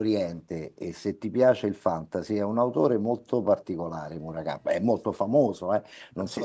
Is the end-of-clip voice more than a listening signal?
Yes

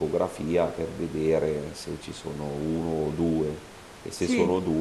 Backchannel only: Yes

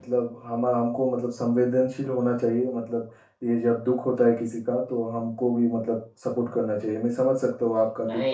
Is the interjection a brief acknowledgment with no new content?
No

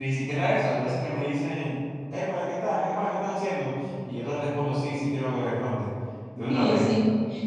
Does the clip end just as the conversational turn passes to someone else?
Yes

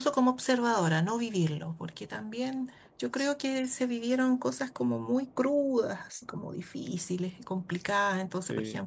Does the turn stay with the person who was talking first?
Yes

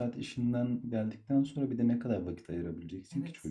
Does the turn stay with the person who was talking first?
No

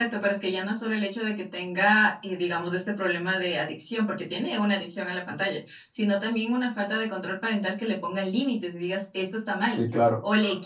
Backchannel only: Yes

